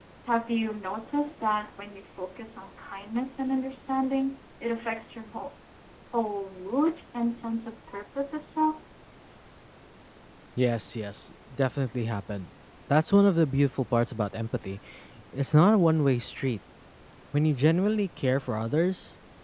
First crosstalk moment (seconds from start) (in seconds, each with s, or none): none